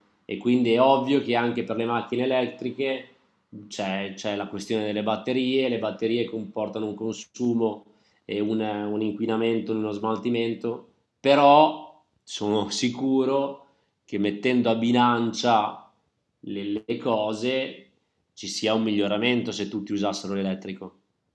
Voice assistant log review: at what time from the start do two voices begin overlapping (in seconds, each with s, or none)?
none